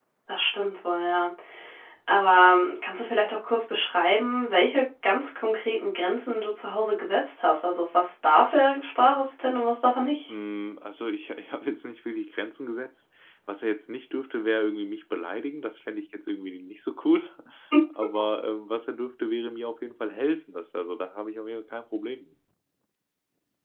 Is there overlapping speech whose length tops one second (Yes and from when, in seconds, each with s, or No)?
No